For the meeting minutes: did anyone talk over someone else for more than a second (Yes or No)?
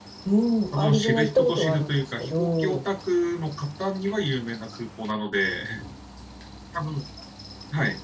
Yes